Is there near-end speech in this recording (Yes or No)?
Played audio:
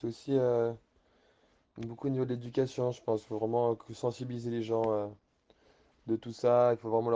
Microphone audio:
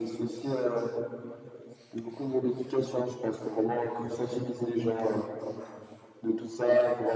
No